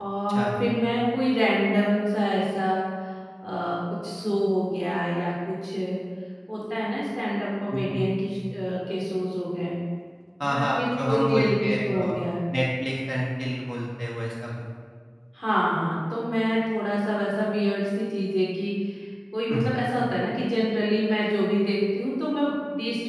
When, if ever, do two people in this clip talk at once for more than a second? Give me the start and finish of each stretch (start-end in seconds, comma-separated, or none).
10.5-12.1